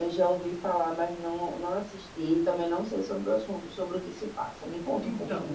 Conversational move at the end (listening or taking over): taking over